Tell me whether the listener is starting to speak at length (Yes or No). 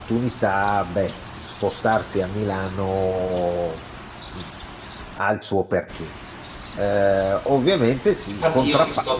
Yes